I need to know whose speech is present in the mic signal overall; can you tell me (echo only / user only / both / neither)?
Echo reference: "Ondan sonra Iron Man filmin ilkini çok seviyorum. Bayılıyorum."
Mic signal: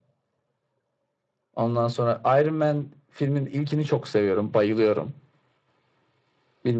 echo only